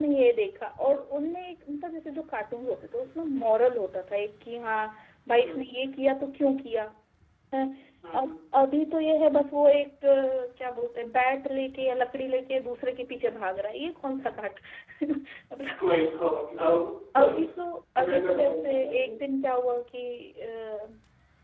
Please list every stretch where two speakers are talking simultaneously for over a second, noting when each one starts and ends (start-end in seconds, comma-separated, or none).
18.0-19.2